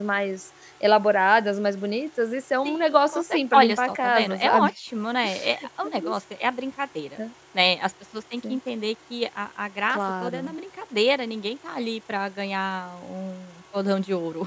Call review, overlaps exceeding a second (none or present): present